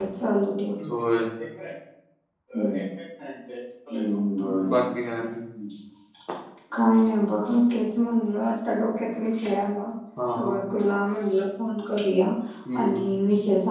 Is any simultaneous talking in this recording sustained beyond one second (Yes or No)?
No